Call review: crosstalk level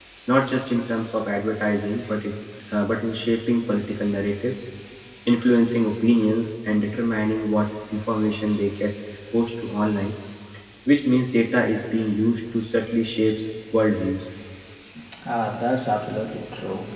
none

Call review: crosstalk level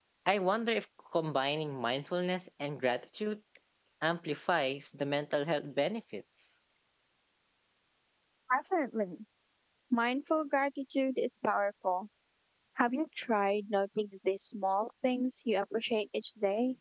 none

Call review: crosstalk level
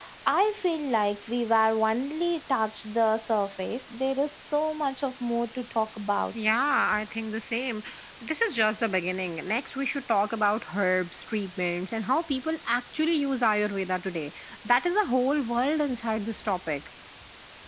none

